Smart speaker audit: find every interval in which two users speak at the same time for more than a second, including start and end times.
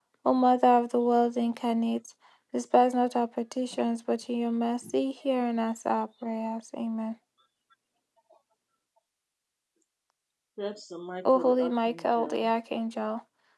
11.2-12.5

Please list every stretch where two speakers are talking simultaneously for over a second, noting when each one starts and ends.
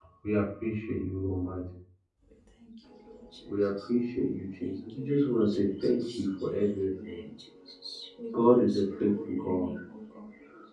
4.6-7.2, 8.3-9.7

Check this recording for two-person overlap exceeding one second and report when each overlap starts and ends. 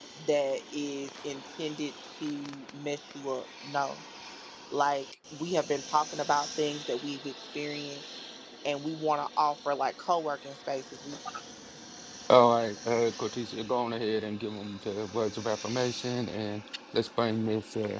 none

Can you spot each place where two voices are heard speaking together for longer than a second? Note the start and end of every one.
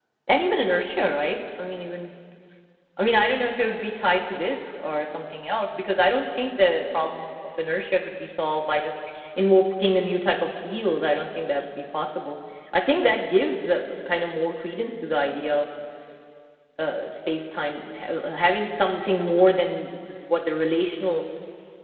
none

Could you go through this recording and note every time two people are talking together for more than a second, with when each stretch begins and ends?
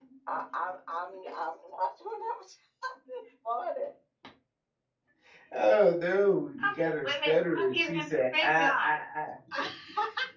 6.6-9.0

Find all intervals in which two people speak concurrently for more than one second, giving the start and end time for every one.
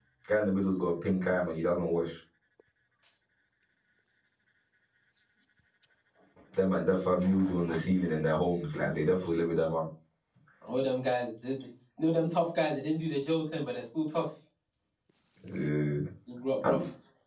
none

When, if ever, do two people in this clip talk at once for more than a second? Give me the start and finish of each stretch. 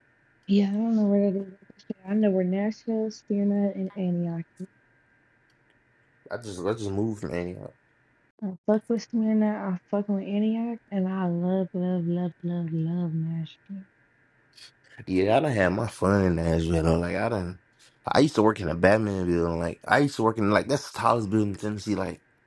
none

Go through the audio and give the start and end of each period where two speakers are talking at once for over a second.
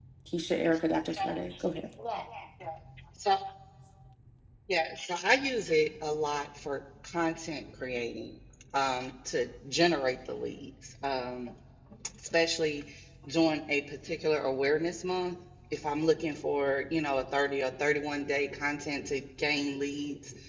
none

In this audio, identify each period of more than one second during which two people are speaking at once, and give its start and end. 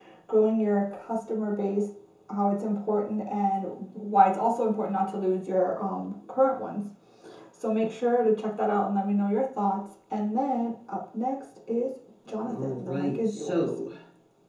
12.4-13.8

